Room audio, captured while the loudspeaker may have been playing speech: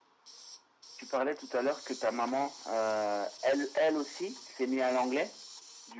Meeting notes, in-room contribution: none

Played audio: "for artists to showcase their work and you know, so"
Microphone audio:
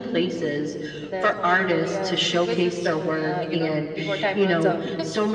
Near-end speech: present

